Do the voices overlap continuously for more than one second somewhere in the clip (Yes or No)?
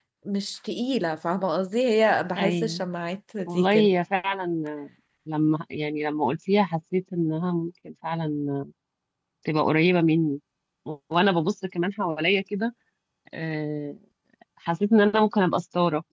No